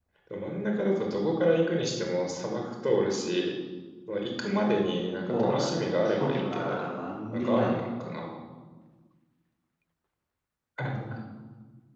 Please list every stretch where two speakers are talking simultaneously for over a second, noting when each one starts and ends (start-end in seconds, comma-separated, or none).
5.3-6.8